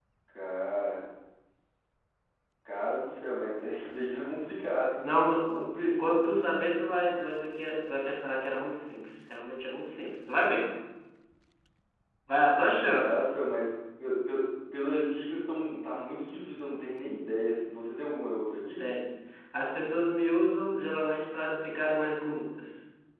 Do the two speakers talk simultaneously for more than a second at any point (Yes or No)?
No